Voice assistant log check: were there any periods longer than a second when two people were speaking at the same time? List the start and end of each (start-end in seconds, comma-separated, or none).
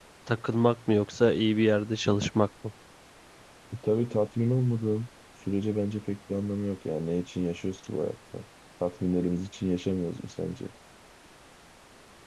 none